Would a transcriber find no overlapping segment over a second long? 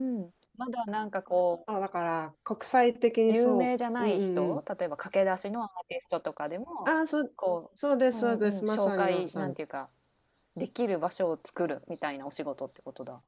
No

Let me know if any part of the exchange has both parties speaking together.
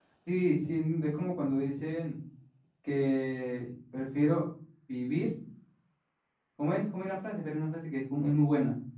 No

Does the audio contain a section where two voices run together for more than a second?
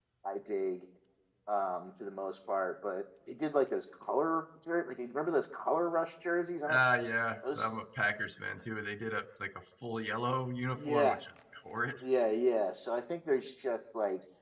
No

